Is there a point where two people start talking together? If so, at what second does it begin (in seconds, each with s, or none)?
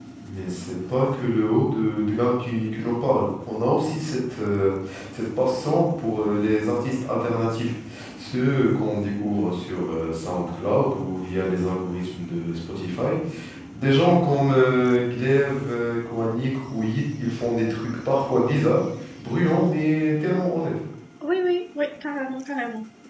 none